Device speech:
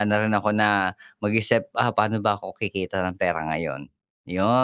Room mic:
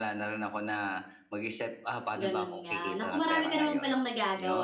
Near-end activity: present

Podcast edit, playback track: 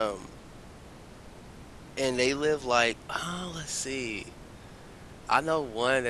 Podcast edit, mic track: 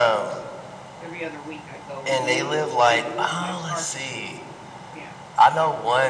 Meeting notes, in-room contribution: present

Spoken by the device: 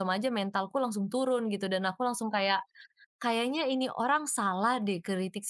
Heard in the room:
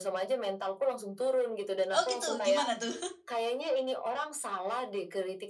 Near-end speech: present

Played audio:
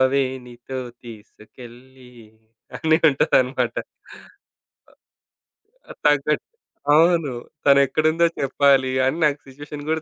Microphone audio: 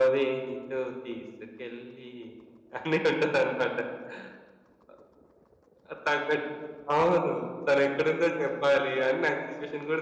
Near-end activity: none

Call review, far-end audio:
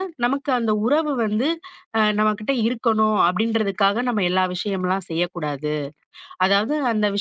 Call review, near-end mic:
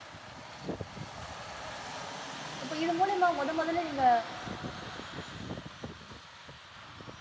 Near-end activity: present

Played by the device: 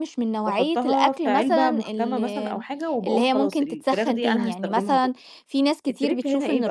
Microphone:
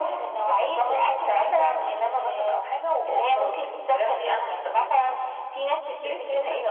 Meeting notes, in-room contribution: none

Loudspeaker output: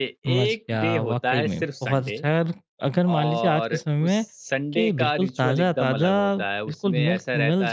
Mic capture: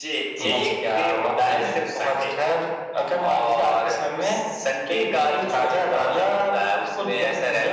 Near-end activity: present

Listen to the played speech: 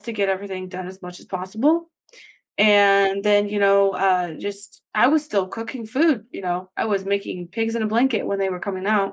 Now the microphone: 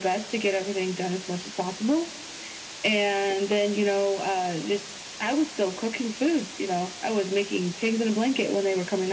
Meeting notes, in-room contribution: none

